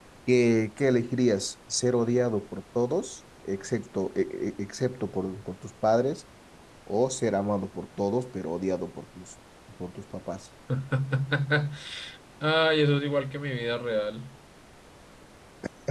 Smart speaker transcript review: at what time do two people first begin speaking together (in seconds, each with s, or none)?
none